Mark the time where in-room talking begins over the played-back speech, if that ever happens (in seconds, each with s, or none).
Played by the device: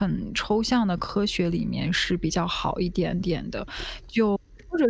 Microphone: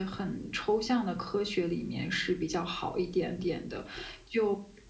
none